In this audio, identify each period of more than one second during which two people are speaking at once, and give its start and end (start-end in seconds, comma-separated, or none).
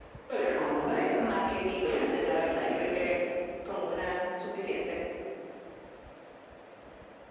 1.8-3.1